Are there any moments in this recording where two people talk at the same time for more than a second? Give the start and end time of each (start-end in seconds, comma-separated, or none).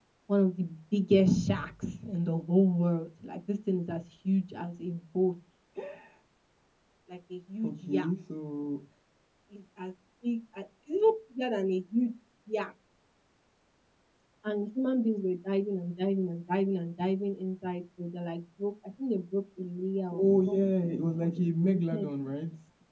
20.1-22.1